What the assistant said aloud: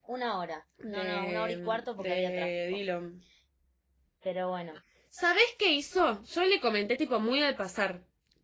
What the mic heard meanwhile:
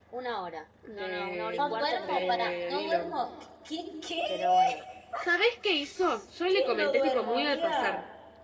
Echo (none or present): present